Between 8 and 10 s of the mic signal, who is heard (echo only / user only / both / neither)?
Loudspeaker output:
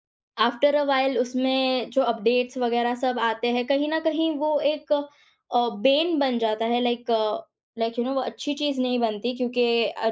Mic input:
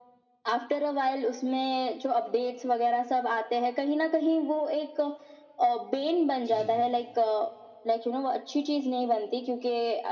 echo only